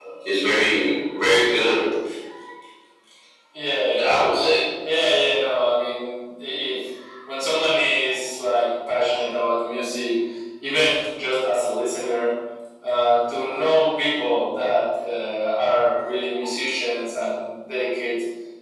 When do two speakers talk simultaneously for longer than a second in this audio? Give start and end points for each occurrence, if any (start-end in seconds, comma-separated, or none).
none